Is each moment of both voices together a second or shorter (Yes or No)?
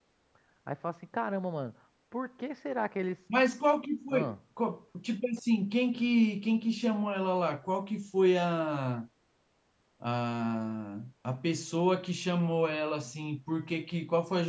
Yes